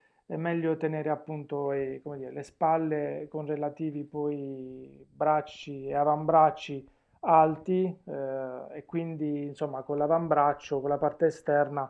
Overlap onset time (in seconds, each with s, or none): none